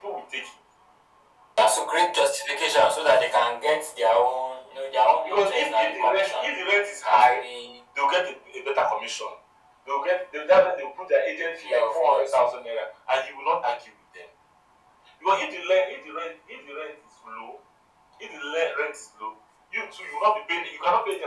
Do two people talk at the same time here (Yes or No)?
Yes